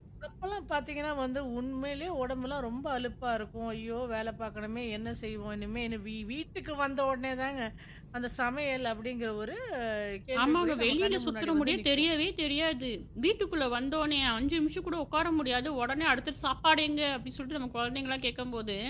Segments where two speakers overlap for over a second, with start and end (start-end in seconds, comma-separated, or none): 10.4-12.0